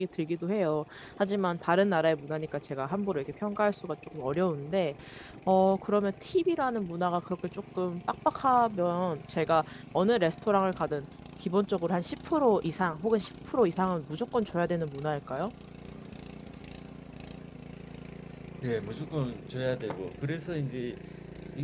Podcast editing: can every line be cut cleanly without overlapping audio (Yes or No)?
Yes